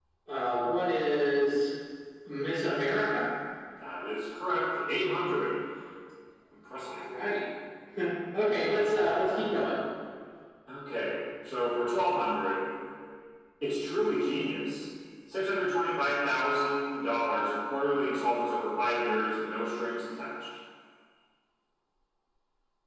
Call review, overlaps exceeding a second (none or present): none